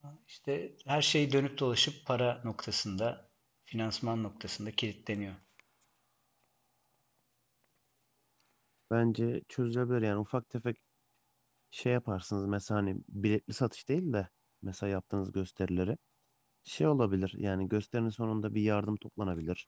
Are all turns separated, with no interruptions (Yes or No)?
Yes